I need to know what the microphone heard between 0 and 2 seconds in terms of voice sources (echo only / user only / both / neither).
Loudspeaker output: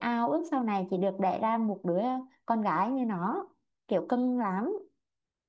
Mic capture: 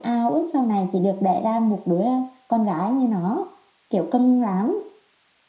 echo only